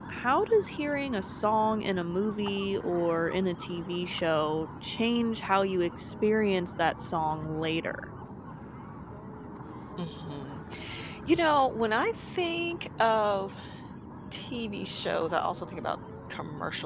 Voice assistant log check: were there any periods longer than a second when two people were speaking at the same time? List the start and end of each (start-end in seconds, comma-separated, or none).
none